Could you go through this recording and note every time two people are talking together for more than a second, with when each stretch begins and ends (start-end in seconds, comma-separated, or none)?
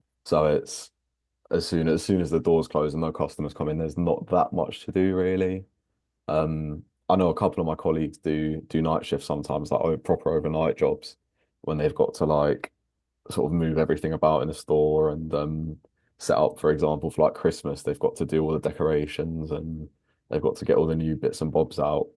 none